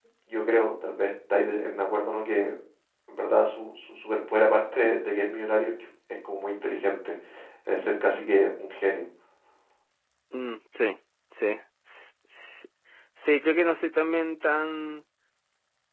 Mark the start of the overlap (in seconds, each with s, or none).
none